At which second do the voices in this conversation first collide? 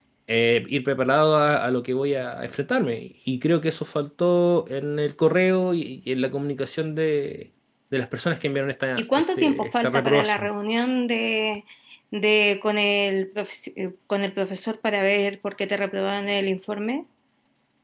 9 s

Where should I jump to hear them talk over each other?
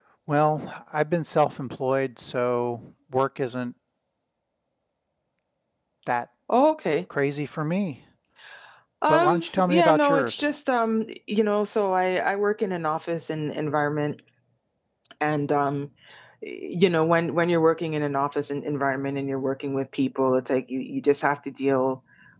9 s

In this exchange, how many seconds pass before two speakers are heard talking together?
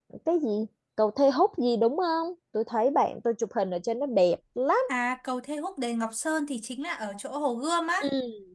none

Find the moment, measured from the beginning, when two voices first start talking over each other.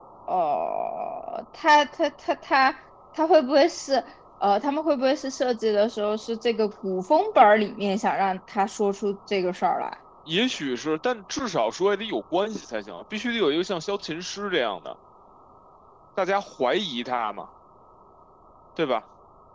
none

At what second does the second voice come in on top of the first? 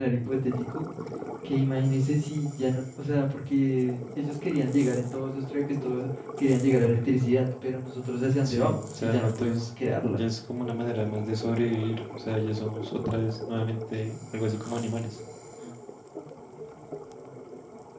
8 s

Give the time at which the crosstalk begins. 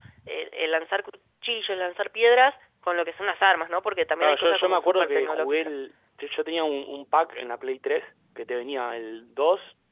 4 s

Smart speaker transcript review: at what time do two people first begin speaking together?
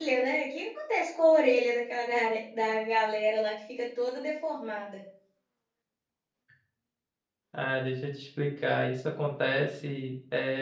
none

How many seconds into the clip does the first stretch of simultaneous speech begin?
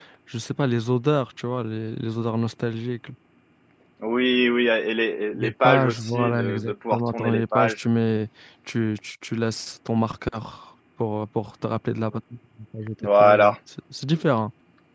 5 s

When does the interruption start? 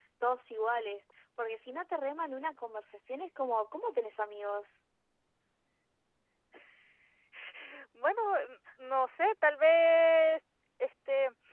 none

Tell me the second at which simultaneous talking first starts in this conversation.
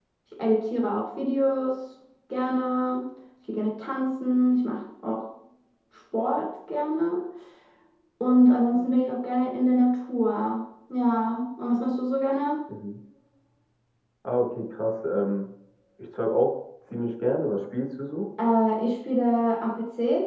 none

